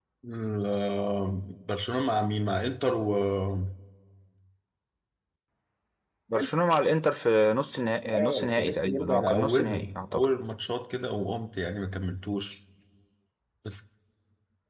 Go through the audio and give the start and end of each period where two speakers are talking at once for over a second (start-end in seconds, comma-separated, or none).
8.1-10.3